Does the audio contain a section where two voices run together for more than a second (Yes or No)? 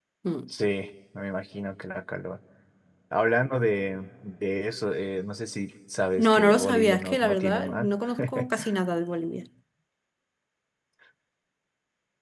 Yes